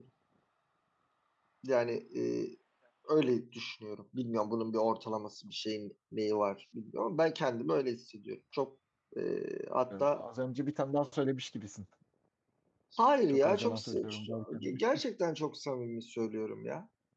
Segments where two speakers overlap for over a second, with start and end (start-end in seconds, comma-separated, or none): 13.3-14.7